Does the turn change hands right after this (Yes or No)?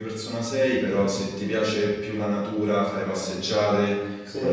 No